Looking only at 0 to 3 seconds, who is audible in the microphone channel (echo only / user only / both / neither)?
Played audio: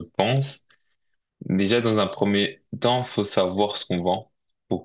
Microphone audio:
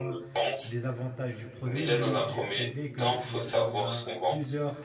both